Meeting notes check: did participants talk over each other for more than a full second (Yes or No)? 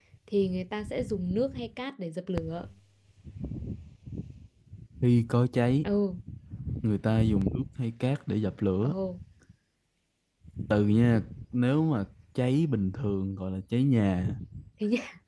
No